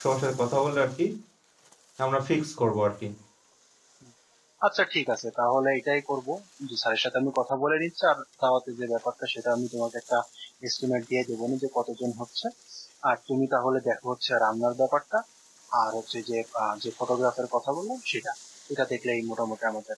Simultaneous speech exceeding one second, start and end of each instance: none

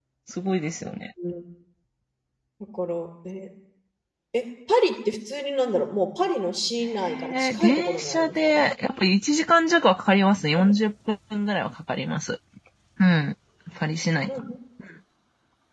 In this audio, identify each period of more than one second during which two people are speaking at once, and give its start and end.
7.0-8.7

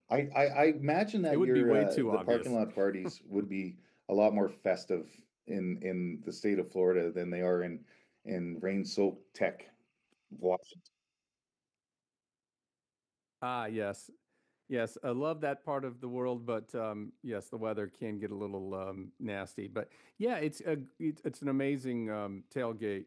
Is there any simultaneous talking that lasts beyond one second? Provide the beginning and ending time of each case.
1.3-2.6

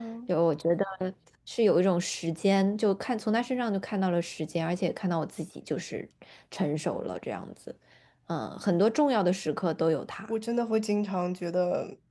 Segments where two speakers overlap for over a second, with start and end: none

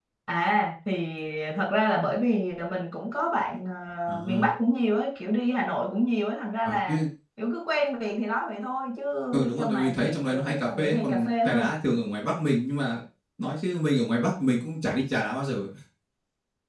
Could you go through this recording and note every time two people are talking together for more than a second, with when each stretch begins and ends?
9.6-11.7

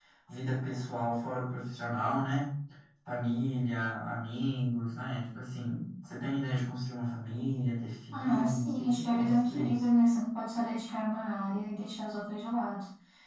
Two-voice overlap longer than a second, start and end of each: 8.1-9.8

